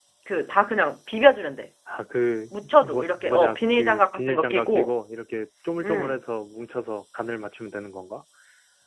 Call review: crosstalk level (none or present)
present